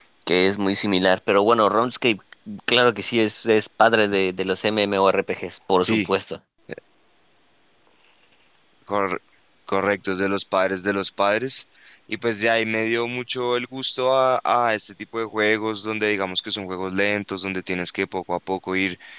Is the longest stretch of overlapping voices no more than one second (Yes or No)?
Yes